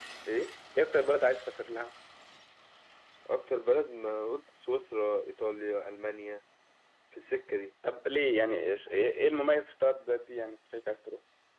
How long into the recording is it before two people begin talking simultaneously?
none

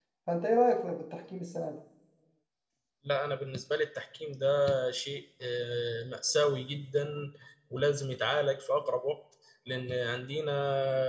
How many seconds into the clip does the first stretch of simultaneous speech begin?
none

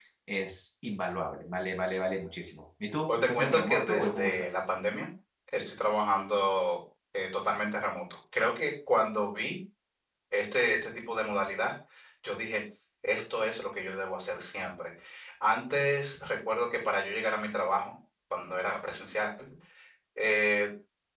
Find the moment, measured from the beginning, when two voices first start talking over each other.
3.1 s

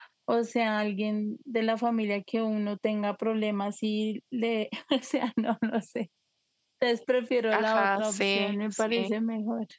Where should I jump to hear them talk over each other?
7.5 s

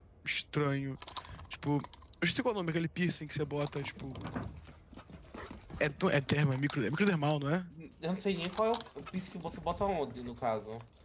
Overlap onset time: none

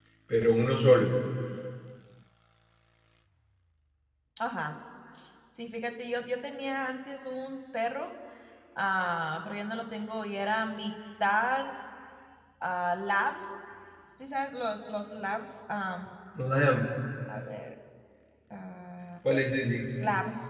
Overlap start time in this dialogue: none

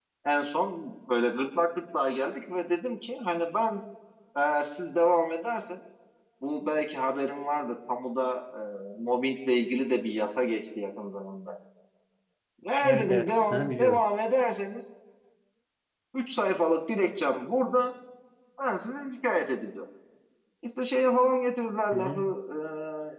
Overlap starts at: 12.8 s

